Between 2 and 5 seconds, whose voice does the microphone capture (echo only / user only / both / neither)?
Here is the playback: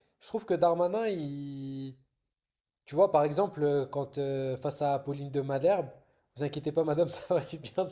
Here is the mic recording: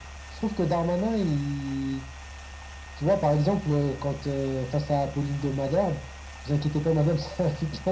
echo only